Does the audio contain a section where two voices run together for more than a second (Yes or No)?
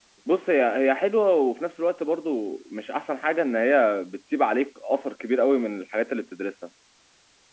No